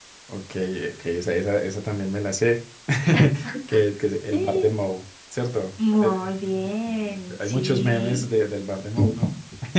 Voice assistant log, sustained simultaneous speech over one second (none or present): present